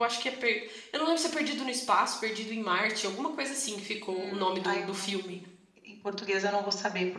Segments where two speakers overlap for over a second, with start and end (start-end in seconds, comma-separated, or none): 4.1-5.4